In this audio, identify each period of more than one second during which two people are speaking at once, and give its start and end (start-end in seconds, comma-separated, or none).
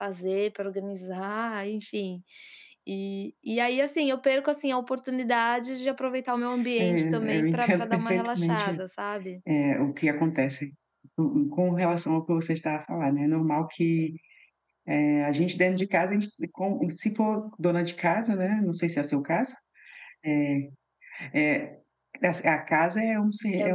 6.8-8.8